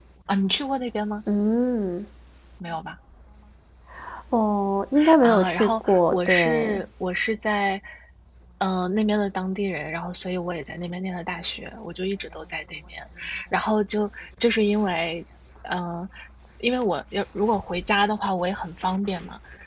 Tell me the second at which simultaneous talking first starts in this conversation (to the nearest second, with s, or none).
5 s